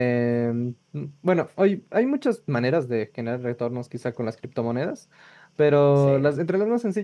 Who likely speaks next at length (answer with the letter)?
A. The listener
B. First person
B